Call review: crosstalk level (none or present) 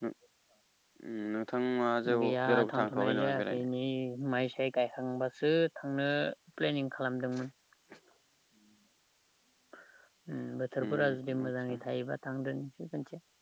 present